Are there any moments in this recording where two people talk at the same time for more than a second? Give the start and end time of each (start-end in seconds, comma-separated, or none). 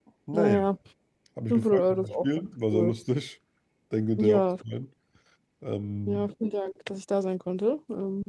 1.5-2.9